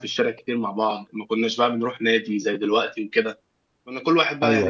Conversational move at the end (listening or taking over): listening